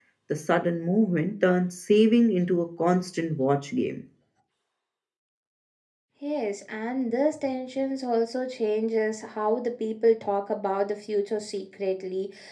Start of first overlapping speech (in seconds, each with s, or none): none